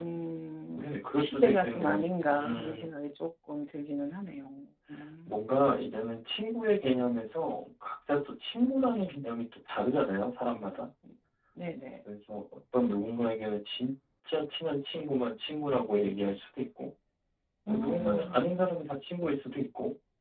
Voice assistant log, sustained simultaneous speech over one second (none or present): present